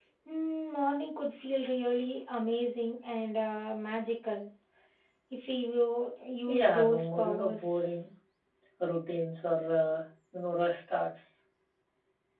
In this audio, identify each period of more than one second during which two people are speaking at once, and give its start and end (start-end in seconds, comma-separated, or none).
6.5-7.9